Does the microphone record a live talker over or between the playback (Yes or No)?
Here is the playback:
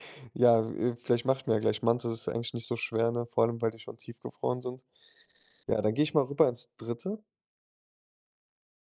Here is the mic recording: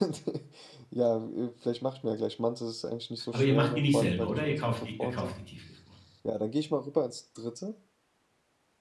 Yes